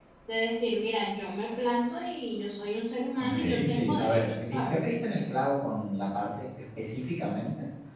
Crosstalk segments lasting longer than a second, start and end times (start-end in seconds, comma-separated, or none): 3.2-4.7